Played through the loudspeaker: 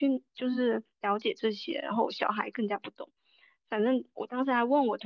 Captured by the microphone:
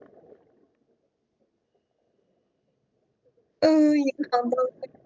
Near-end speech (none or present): present